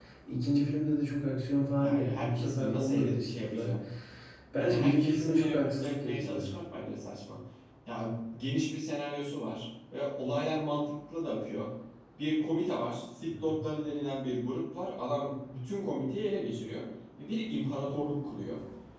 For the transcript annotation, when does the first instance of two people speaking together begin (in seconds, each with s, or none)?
1.8 s